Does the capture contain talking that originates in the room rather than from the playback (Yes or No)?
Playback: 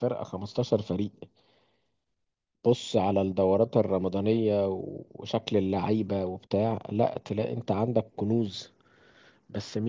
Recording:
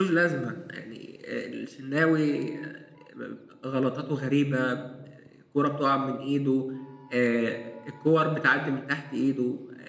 Yes